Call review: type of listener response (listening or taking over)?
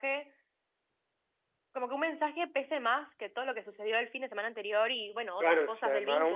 taking over